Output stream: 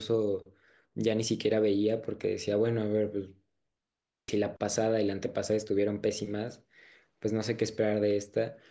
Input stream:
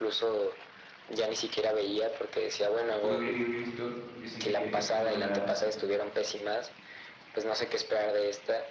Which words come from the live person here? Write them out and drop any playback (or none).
poca crítica que he visto dicen de que es como de las,